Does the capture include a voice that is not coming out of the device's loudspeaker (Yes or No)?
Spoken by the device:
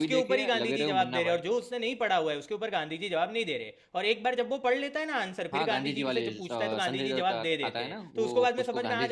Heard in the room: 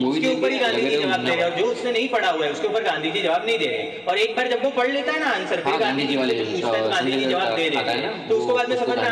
No